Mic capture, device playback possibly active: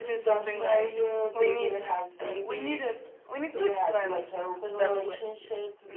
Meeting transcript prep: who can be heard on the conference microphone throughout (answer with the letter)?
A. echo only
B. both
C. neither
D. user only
B